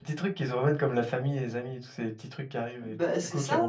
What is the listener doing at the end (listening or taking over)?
taking over